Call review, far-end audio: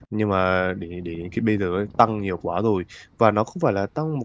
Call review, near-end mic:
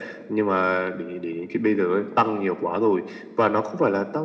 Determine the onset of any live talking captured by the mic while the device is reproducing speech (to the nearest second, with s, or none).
none